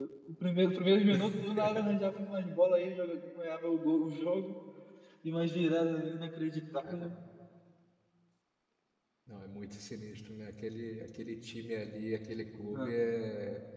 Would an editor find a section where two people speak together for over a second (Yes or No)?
No